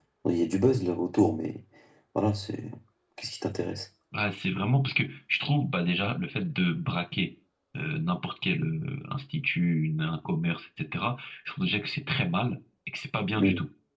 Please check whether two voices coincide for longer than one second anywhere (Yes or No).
No